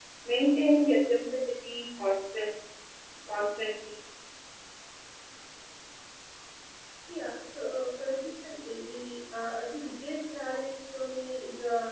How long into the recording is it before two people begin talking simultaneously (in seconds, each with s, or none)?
none